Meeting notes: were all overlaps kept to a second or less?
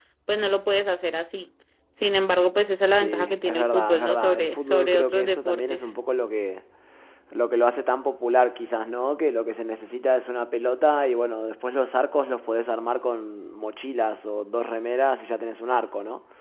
No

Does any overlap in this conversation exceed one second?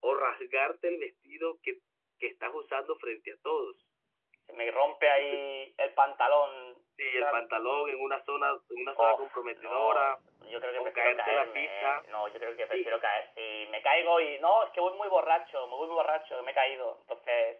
Yes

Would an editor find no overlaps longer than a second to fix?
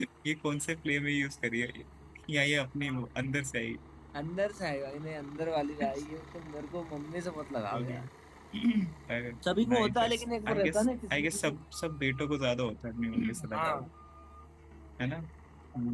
No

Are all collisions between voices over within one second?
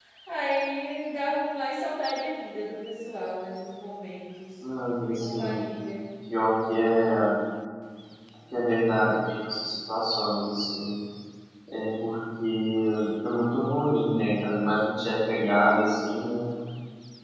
Yes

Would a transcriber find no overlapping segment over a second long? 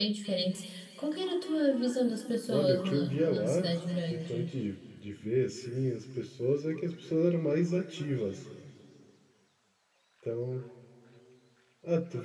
No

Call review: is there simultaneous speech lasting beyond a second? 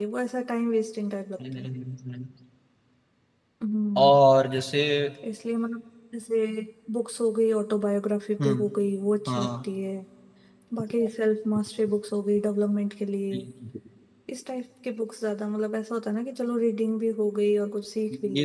No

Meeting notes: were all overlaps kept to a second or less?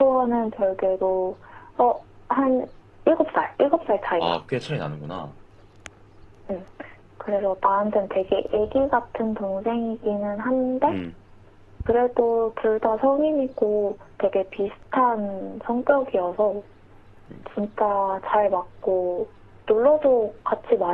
Yes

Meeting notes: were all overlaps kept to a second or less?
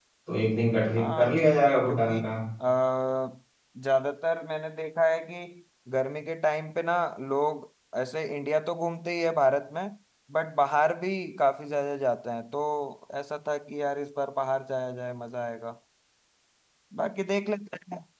No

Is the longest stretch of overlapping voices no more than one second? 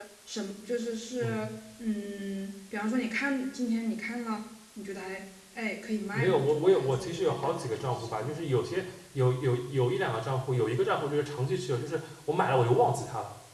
No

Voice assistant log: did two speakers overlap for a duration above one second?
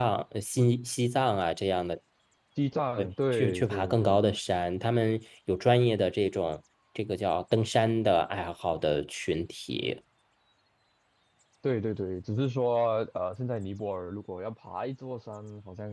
Yes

